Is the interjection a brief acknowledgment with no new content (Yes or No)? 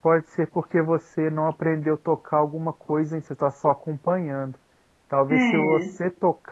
Yes